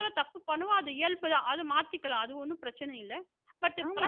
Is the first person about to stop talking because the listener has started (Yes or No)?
Yes